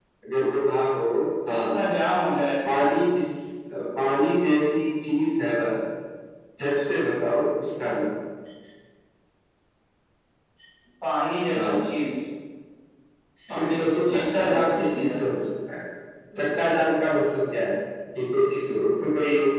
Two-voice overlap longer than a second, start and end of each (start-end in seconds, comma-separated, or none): 13.6-15.1